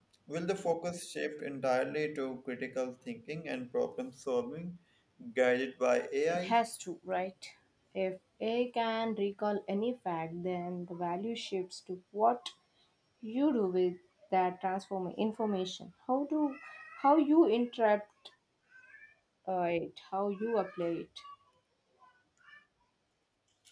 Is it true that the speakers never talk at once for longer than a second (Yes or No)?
Yes